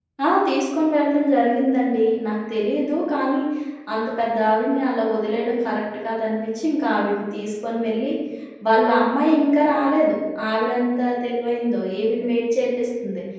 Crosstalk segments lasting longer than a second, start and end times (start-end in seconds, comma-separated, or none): none